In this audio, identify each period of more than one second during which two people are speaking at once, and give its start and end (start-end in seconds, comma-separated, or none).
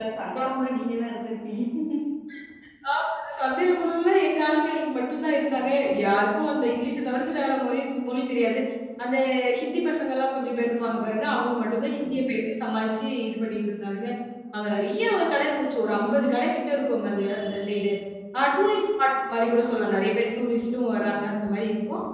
none